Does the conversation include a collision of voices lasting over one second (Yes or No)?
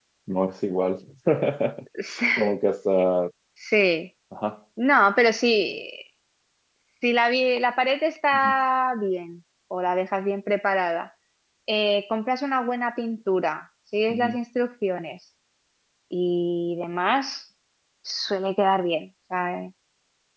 No